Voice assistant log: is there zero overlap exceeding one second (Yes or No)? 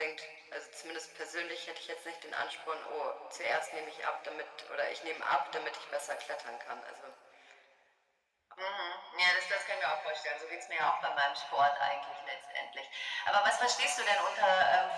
Yes